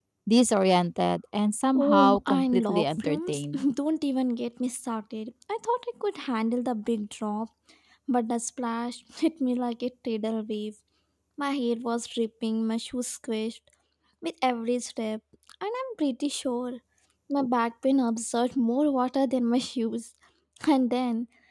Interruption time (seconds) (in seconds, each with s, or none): 1.8 s